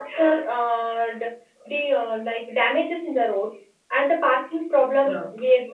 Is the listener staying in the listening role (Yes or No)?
Yes